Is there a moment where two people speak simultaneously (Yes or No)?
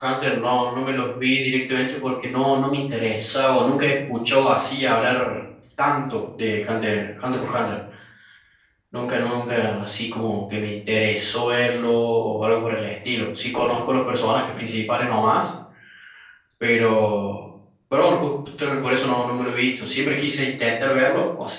No